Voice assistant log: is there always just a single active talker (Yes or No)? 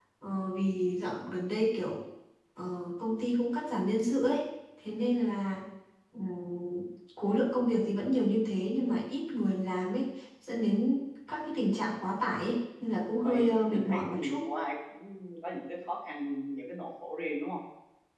No